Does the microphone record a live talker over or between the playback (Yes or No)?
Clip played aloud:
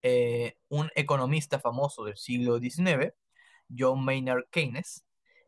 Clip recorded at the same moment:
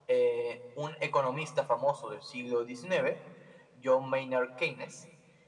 No